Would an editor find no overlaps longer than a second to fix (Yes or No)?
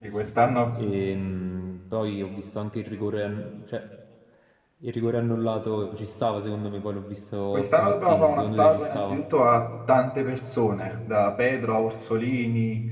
No